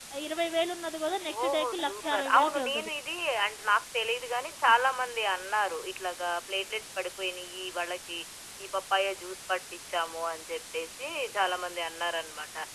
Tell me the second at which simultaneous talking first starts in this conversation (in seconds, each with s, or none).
1.3 s